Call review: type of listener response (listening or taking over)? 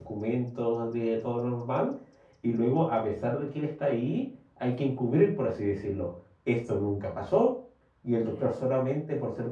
listening